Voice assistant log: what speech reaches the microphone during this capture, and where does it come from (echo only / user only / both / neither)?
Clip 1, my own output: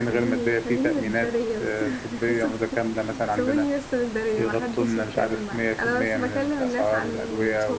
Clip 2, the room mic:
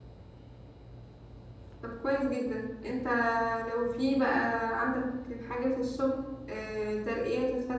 user only